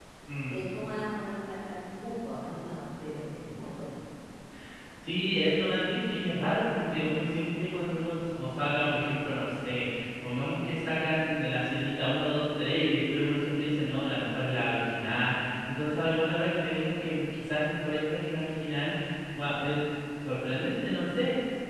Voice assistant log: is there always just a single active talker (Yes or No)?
Yes